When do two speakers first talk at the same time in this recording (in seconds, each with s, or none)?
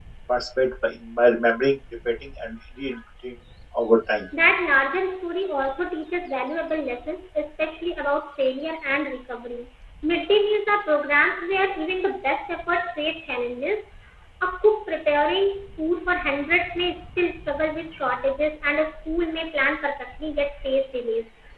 none